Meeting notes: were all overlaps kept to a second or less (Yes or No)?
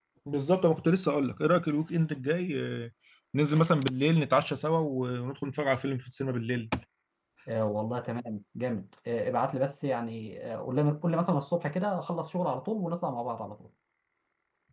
Yes